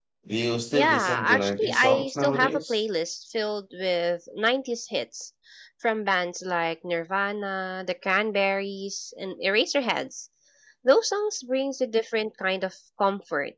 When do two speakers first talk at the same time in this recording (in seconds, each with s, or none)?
0.7 s